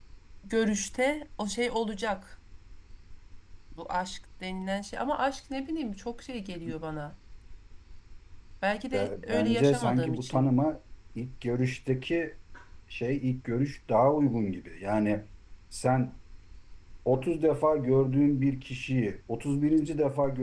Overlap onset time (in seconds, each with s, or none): 8.9 s